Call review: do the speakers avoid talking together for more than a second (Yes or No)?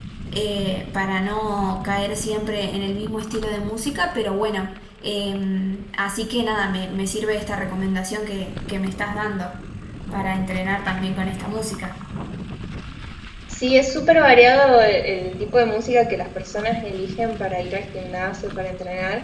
Yes